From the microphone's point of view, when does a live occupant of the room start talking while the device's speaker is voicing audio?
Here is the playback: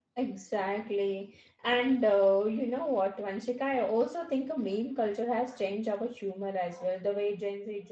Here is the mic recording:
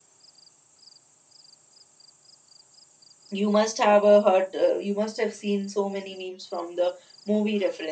3.3 s

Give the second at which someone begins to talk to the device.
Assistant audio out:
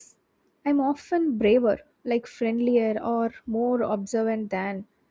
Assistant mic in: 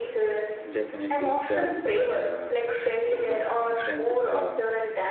0.7 s

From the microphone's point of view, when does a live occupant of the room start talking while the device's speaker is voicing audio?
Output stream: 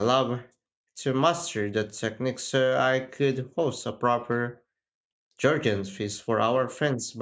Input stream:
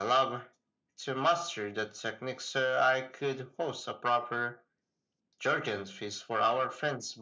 none

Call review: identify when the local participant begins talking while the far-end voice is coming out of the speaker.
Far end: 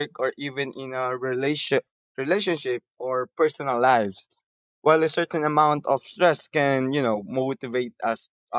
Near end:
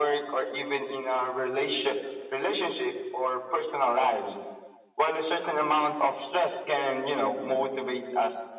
none

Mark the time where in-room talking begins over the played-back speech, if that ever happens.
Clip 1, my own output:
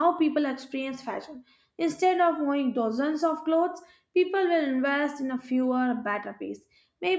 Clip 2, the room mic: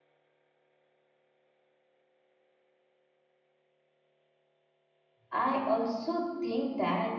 5.3 s

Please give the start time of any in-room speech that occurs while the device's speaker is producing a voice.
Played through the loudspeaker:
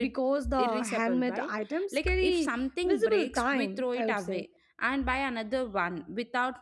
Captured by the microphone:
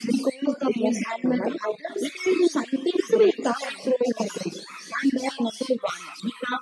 none

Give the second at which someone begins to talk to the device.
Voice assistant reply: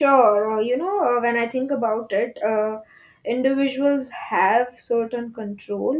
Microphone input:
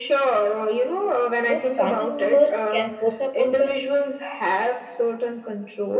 1.4 s

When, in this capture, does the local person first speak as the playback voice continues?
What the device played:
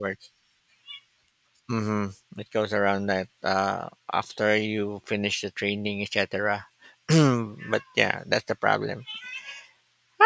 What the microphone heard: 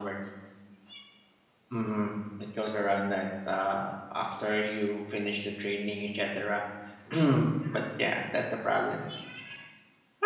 none

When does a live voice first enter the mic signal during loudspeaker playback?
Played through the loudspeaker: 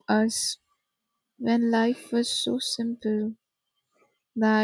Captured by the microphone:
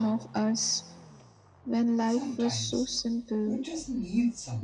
2.0 s

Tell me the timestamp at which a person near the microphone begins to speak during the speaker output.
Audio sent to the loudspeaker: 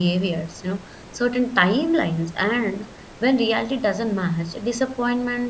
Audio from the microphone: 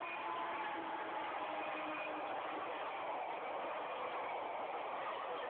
none

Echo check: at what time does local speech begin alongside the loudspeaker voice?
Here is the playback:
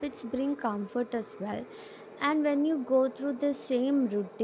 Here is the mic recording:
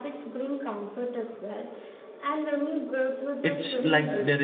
3.4 s

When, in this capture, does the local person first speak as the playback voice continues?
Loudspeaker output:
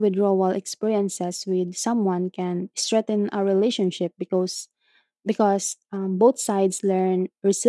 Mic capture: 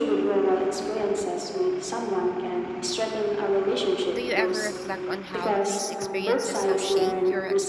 4.1 s

